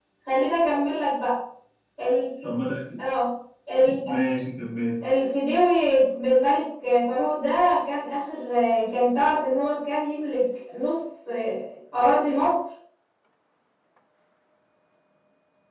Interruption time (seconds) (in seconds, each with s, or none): none